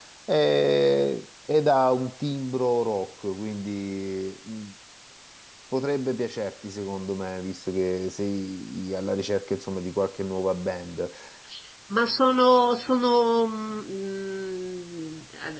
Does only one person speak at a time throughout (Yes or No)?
Yes